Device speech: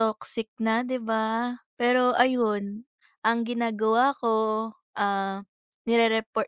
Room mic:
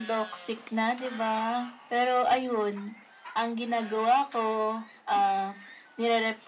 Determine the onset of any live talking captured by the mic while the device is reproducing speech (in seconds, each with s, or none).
none